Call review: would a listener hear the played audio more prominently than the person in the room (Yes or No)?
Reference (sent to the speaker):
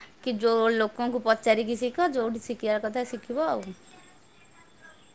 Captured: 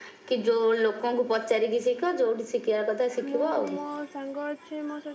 Yes